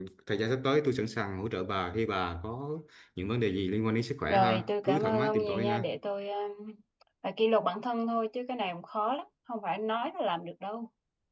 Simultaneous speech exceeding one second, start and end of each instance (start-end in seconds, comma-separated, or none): 4.3-5.8